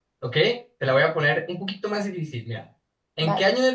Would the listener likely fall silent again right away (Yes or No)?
Yes